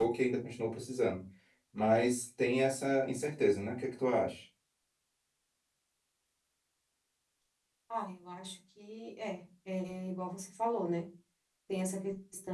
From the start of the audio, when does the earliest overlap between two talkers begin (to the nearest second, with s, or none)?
none